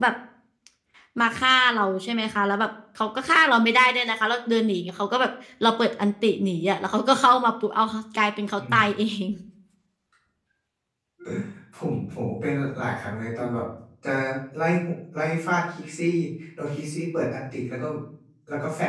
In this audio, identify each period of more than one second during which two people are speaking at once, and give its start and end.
none

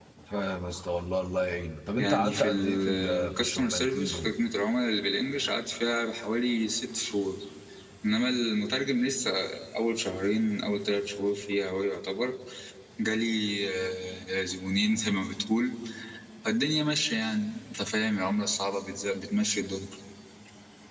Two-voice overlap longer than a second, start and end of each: 2.0-4.3

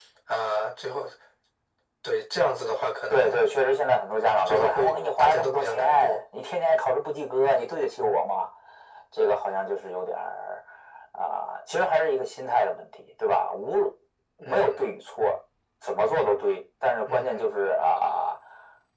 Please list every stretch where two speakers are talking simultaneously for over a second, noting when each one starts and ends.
4.4-6.2

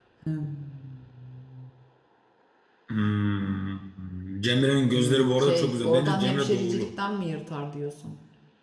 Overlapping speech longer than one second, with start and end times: 4.9-6.9

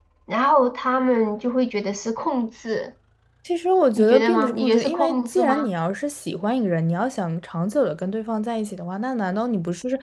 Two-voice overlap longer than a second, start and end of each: 4.0-5.7

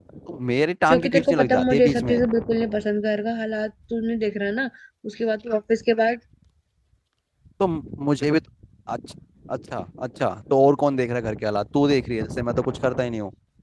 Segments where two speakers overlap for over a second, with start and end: 0.9-2.2

